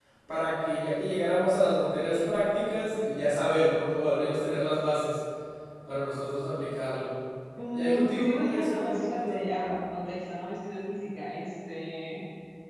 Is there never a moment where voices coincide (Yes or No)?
No